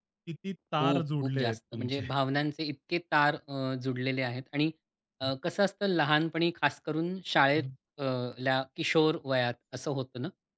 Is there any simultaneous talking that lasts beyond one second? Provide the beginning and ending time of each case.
0.8-2.0

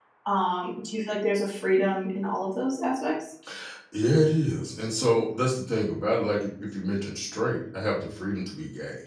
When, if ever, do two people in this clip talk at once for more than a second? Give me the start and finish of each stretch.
none

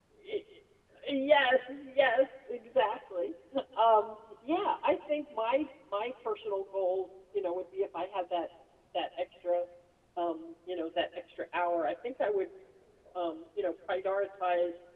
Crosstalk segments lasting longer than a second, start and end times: none

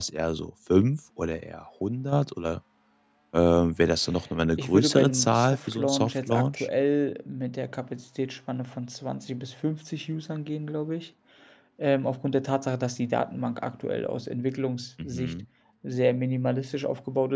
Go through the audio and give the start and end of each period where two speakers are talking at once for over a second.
4.6-6.7

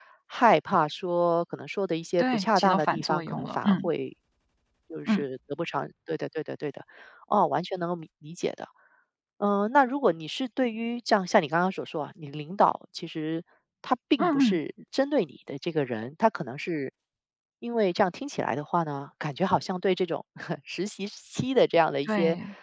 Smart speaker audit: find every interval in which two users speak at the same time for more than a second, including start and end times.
2.2-3.9

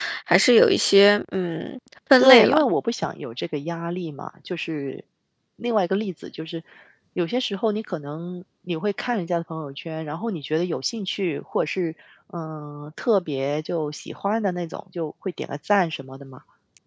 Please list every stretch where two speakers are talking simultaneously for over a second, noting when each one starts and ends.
none

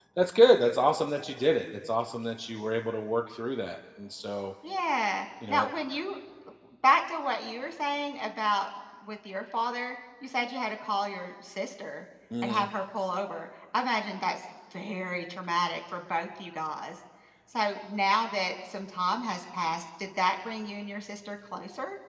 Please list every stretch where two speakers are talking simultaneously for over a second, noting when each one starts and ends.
none

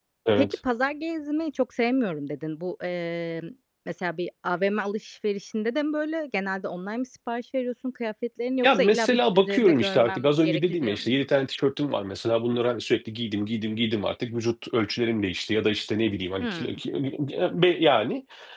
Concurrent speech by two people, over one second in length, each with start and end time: 8.6-11.1

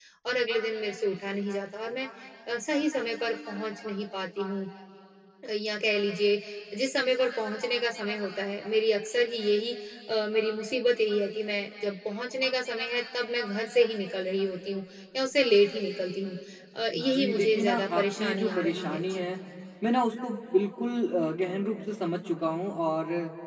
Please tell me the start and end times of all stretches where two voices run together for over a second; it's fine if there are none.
16.9-19.2

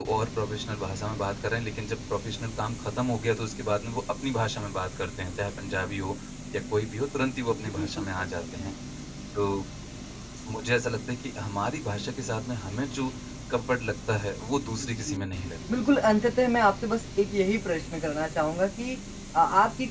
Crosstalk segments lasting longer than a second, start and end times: 7.5-8.7

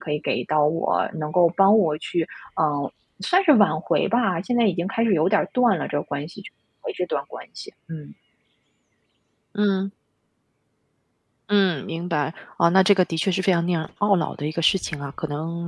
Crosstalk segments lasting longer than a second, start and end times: none

